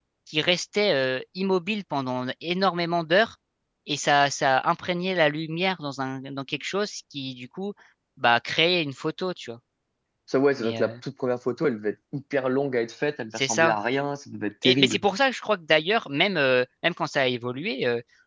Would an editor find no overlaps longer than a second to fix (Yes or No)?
Yes